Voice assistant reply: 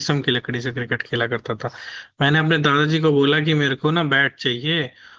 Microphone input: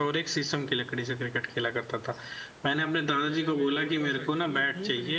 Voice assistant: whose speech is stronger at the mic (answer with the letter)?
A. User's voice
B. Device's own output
B